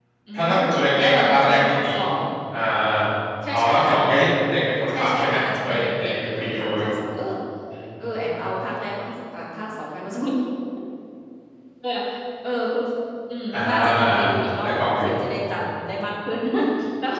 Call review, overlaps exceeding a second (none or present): present